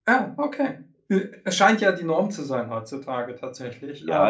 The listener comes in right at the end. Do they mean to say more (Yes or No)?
Yes